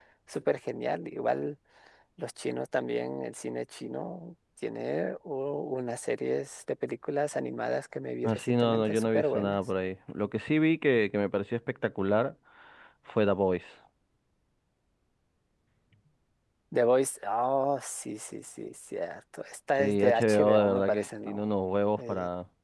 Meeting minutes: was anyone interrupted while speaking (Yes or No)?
Yes